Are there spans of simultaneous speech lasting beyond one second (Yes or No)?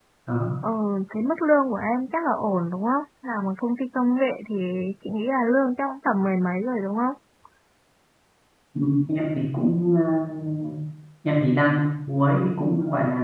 No